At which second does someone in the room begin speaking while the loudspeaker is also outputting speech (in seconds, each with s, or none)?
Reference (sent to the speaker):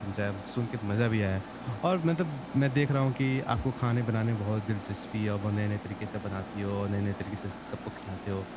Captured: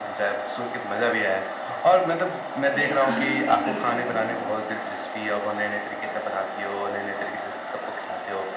2.7 s